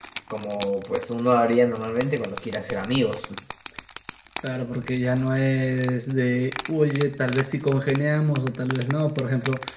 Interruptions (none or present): none